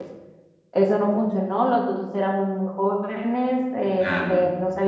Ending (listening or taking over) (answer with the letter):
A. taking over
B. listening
B